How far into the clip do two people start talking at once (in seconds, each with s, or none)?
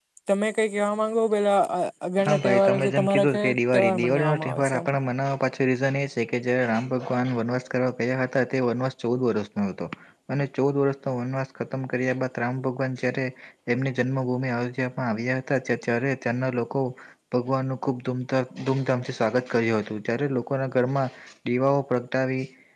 2.2 s